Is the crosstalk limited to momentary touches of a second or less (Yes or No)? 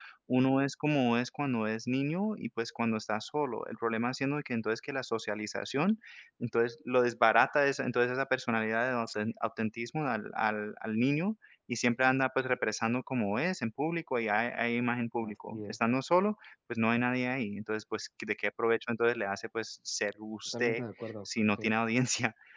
Yes